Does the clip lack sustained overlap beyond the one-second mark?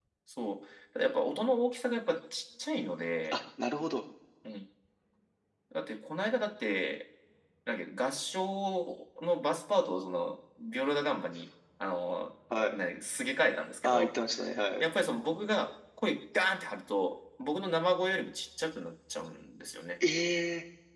Yes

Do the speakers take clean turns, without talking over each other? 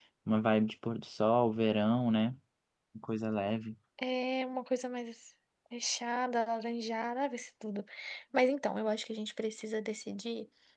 Yes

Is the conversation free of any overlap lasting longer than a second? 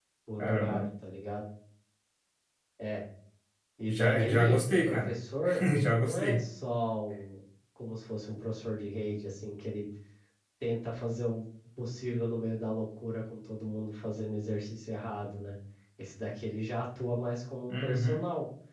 No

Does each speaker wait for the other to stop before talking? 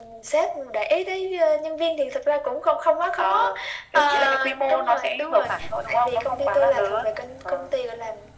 No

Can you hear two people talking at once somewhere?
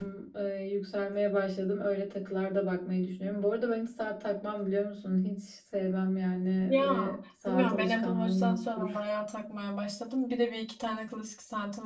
Yes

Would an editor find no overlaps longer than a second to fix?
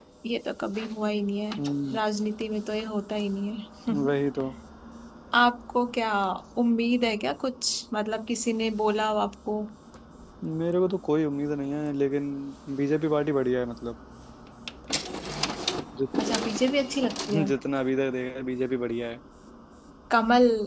Yes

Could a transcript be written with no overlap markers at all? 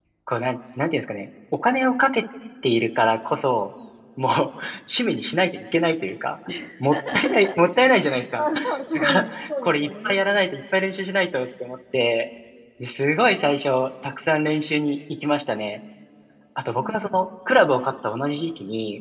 No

